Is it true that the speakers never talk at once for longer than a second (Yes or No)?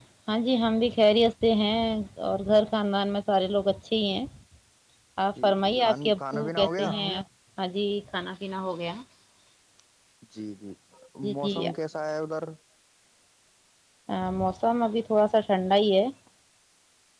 No